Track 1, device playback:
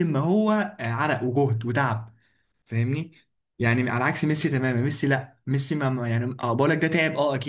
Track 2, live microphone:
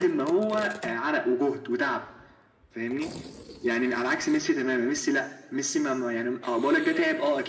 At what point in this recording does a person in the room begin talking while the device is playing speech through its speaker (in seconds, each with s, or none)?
none